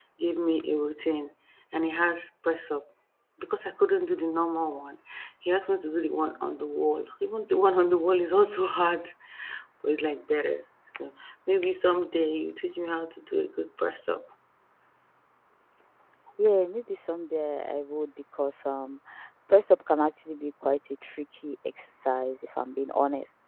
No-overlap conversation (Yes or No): Yes